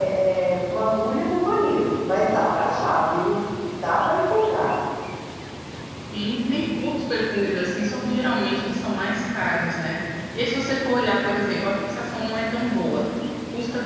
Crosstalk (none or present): none